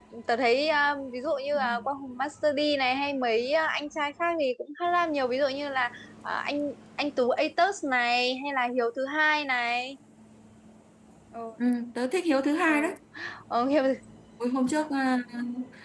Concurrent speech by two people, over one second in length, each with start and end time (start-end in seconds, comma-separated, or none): none